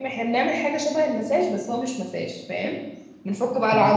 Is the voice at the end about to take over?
Yes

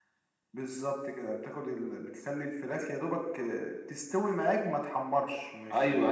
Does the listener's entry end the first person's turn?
Yes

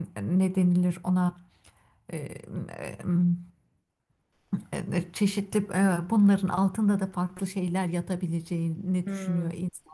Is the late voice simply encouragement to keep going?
No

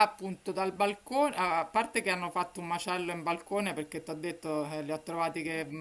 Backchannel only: Yes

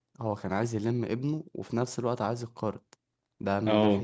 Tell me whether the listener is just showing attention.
No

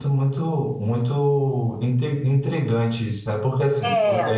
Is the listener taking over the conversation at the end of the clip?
No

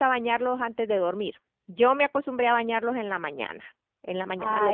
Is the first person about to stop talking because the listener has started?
Yes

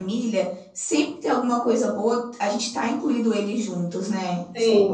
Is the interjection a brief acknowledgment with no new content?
No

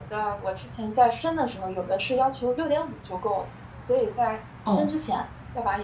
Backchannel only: Yes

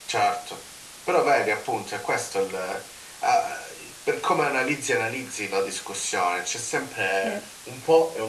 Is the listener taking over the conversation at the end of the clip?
No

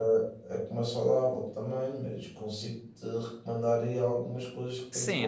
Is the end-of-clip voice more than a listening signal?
Yes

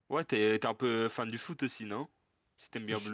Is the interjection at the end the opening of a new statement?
Yes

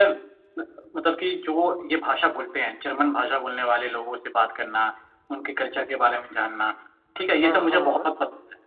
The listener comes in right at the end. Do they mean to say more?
No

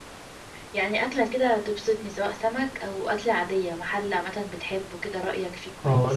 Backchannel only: No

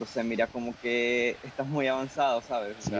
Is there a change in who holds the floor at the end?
Yes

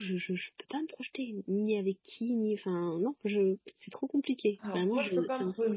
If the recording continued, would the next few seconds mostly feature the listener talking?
Yes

